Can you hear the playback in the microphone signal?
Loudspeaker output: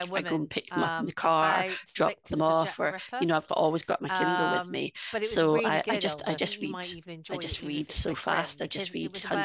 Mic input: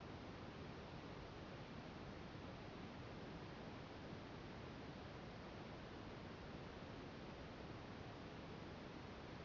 No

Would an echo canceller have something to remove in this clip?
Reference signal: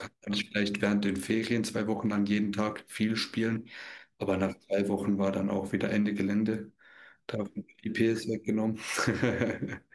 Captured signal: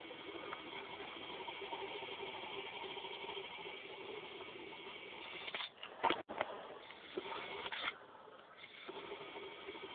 No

